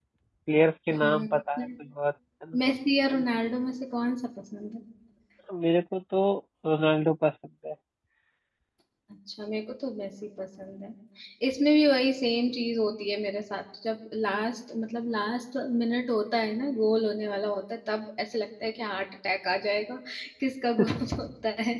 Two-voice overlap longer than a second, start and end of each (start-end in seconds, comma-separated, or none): none